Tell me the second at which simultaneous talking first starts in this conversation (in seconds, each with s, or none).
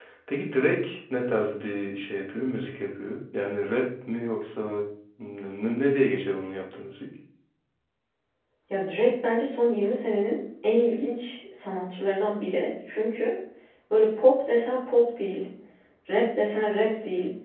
none